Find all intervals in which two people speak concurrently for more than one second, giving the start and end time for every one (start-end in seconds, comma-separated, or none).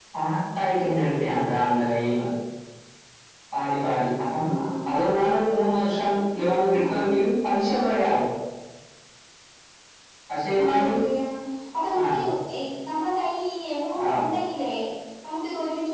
none